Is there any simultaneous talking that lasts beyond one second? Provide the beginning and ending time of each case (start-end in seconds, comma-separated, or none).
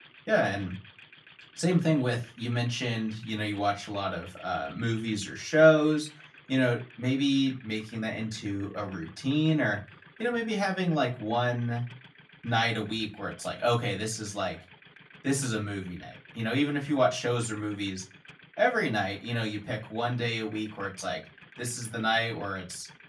none